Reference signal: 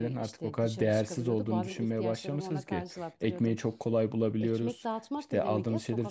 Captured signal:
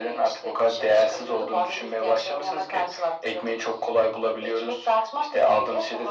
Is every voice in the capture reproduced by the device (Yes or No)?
Yes